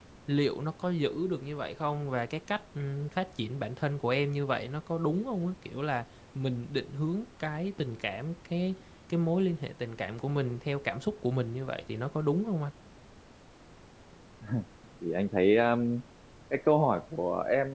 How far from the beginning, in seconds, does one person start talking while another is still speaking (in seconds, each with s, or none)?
none